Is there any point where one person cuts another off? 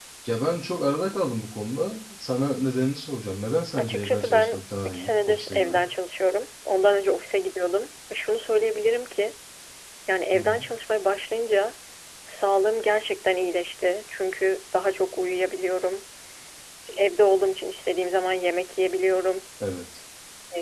Yes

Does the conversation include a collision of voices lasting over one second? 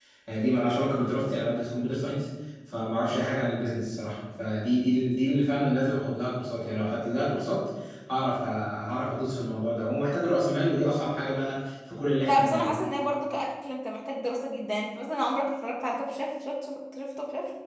No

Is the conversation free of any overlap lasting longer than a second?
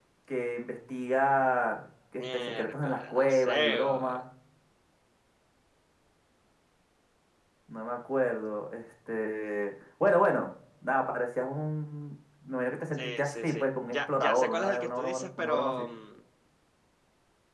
No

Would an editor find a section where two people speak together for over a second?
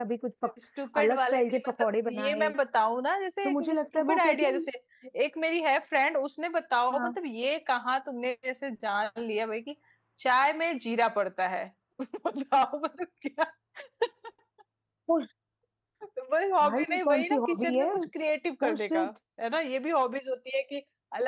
Yes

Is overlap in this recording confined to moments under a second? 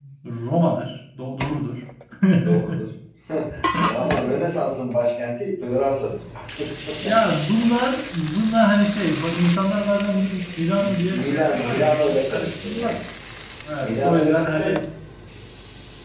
No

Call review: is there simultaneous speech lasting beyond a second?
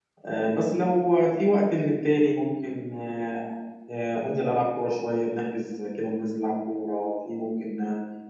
No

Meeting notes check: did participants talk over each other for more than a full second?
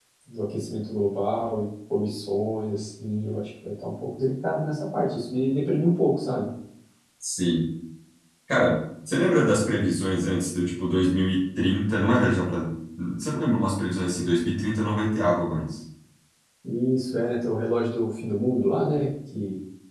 No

